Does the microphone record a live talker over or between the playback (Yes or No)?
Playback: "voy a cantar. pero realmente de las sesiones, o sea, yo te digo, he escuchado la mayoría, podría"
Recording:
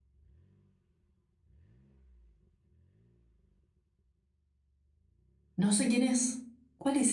Yes